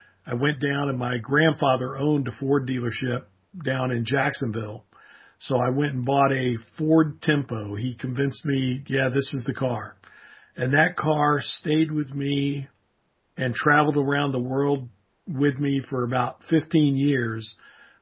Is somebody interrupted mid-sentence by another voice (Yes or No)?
No